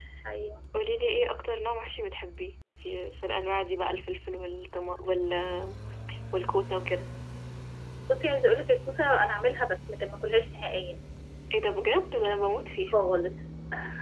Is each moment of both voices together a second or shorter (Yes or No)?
Yes